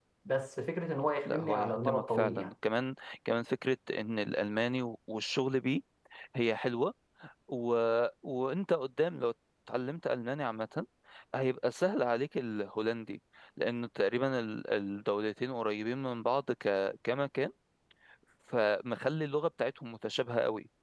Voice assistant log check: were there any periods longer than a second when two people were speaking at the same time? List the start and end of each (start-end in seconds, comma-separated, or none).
1.2-2.5